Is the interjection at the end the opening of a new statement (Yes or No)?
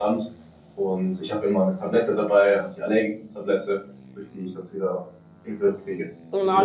Yes